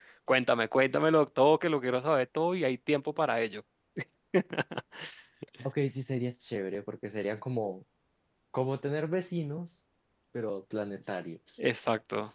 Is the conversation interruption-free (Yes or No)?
Yes